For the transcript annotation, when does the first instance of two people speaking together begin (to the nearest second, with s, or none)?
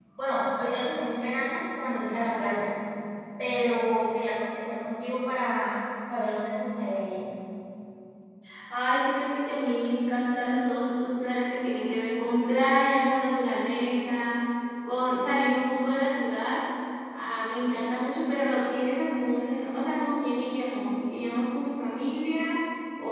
none